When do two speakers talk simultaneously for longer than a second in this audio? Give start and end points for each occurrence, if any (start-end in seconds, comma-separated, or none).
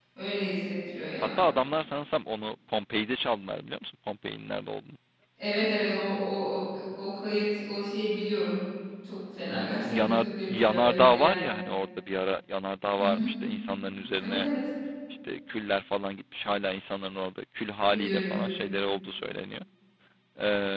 9.5-11.4